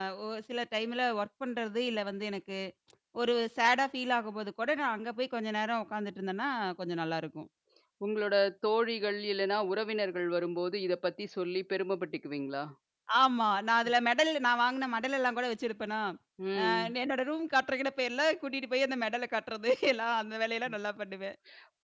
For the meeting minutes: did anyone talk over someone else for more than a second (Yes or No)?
No